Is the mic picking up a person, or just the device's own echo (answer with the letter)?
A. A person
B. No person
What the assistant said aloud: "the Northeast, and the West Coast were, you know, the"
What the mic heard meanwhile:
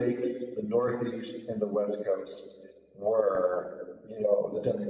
B